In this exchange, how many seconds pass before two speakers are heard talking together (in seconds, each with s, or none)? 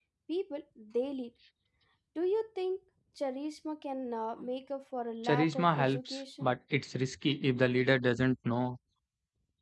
5.2 s